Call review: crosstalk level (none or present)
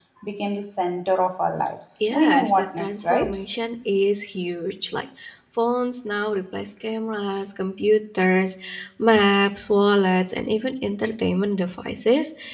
present